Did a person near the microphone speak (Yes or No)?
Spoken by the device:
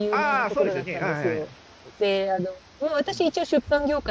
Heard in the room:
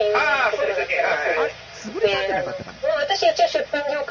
Yes